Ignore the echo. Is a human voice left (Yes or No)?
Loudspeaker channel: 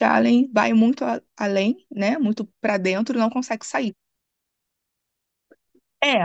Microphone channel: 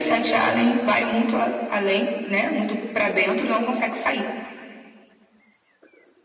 No